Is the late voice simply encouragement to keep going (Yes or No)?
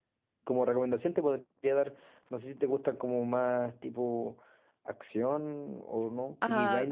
No